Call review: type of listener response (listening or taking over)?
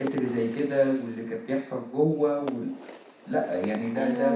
taking over